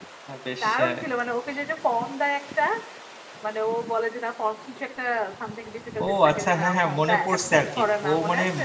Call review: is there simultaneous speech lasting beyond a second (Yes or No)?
Yes